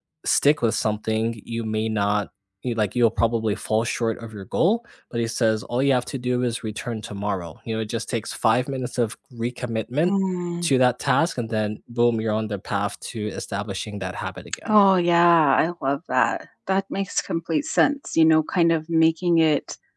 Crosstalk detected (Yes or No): No